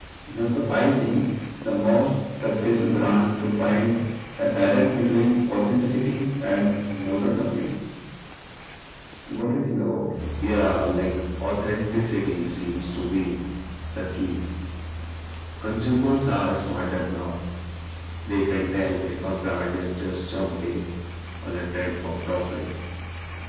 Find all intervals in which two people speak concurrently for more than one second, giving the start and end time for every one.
none

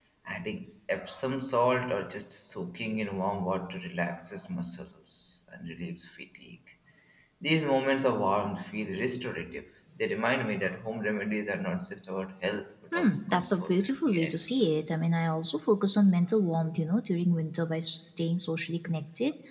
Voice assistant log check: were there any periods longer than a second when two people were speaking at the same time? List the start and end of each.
12.9-14.3

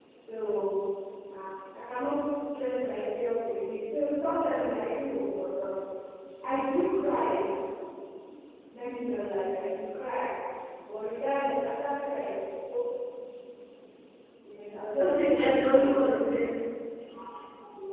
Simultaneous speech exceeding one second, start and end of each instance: 15.0-16.2

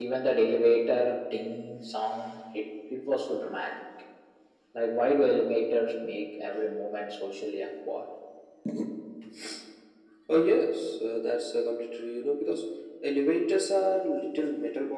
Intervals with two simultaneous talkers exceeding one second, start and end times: none

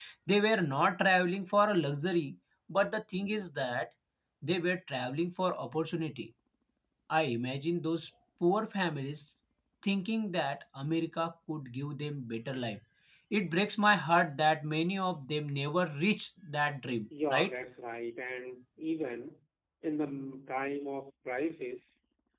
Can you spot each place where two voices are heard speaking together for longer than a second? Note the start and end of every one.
none

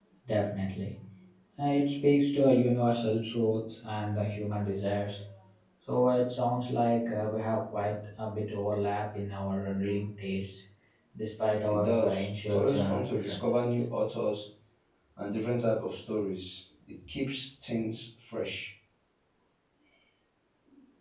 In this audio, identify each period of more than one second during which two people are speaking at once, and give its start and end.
11.7-13.8

